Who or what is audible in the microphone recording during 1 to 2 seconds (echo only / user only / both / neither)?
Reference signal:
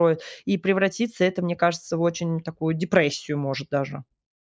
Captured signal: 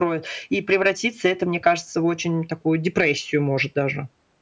echo only